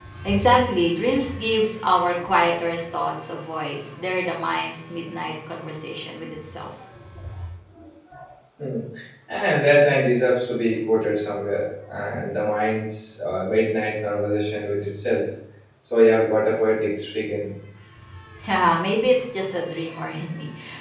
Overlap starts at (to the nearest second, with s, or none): none